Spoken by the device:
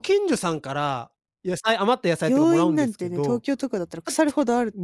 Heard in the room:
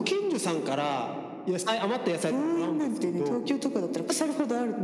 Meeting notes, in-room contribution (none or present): none